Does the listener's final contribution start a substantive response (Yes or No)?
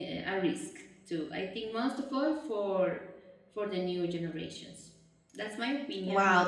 Yes